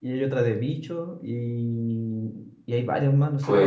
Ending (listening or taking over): taking over